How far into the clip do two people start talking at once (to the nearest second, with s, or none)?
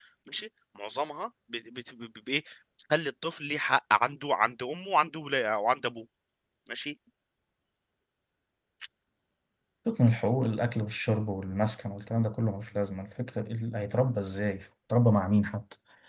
none